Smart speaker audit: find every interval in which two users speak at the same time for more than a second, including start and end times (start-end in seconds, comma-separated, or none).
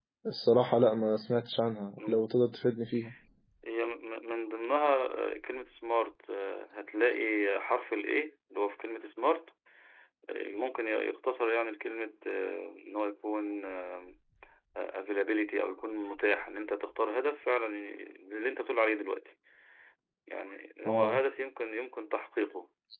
none